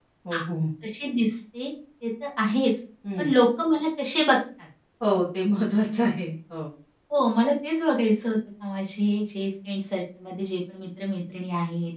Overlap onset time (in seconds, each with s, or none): none